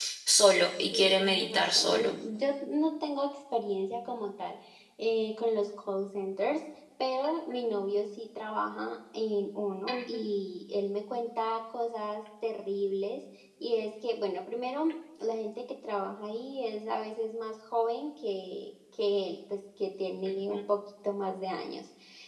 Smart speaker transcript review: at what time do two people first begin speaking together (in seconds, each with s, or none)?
0.9 s